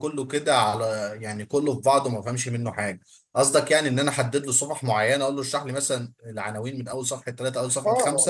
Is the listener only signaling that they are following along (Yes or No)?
No